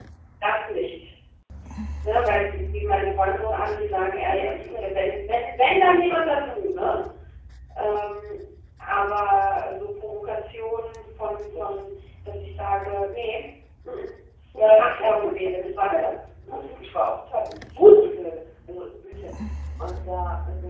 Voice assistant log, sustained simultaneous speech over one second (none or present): present